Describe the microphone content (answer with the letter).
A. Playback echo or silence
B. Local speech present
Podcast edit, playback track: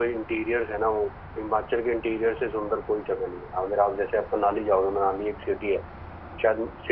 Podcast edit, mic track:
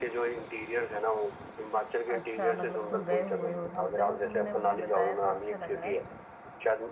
B